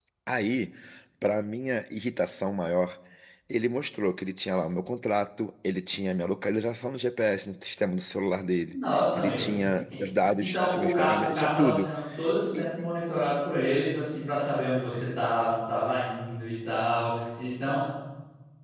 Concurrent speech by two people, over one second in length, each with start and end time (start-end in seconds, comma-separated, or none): 10.4-11.9